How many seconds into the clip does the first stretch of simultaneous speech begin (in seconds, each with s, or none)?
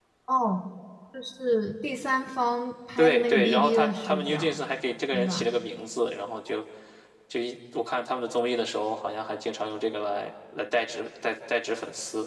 3.0 s